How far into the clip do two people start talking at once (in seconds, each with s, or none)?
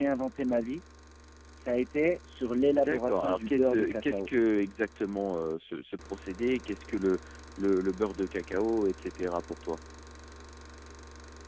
2.7 s